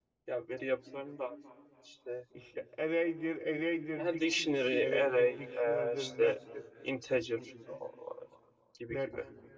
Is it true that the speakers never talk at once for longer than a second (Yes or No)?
No